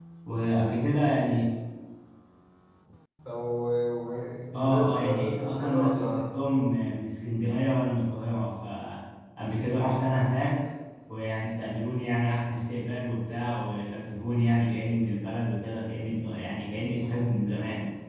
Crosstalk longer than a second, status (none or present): present